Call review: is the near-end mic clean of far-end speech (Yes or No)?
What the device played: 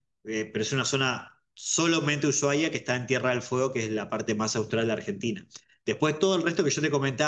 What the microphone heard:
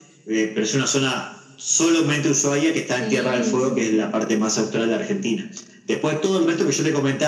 No